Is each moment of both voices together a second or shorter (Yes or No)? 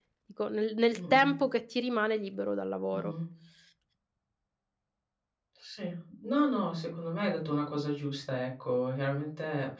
Yes